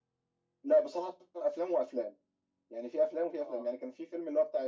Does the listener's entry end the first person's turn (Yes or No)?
No